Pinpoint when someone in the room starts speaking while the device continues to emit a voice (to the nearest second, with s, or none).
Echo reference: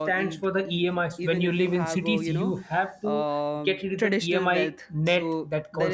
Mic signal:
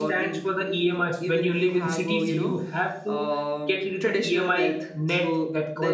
none